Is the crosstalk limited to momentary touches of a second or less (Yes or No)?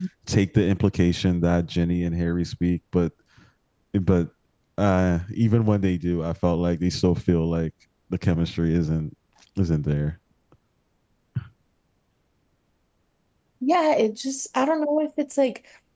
Yes